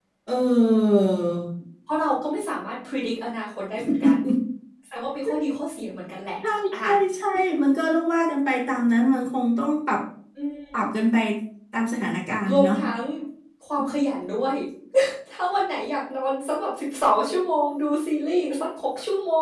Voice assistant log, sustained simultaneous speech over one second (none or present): none